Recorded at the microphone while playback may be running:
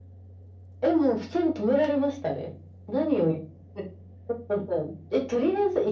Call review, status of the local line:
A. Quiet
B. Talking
A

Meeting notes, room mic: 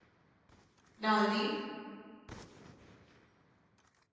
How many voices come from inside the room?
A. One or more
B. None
A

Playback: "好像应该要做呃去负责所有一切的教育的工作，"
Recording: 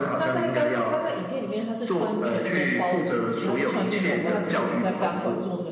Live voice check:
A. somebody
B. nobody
A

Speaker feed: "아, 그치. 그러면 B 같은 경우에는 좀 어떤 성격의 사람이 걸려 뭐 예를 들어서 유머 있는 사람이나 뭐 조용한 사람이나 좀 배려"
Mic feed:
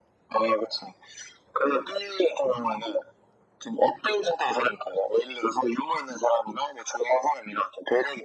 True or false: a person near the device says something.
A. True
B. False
B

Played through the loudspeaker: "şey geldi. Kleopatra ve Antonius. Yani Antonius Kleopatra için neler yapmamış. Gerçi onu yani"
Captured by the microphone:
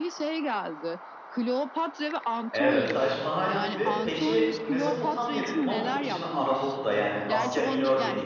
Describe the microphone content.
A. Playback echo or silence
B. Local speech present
B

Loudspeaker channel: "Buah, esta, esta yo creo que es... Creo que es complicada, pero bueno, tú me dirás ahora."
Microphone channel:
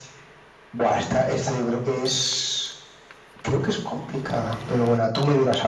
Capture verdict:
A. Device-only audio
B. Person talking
A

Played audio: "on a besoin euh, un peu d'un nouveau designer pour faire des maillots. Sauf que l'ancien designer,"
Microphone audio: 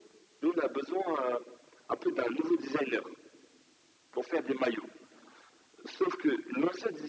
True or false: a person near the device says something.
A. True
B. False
B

